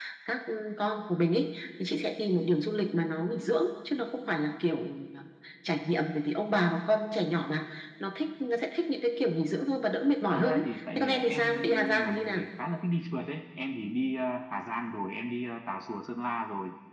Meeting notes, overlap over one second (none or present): present